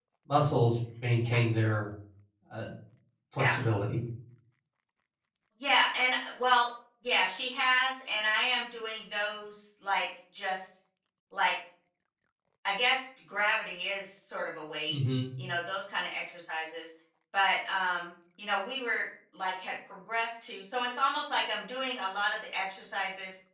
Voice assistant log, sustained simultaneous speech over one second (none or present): none